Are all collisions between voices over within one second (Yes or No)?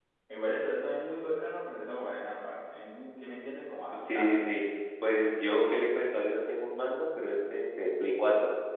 Yes